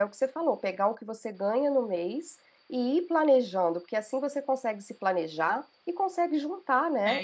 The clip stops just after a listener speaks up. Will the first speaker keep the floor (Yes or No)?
No